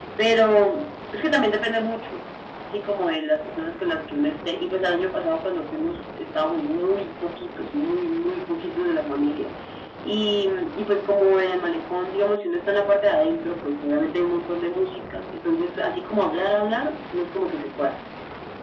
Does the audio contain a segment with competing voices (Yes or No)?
No